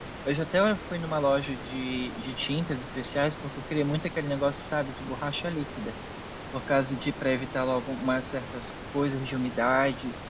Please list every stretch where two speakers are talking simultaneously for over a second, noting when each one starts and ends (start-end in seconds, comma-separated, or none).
none